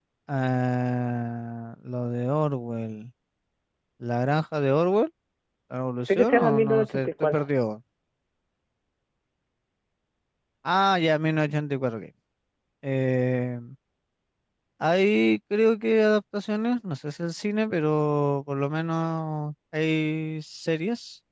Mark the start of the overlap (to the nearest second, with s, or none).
6 s